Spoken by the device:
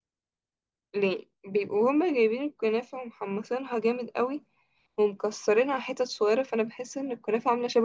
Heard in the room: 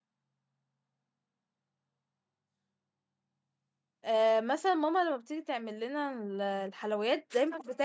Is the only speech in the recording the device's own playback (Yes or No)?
No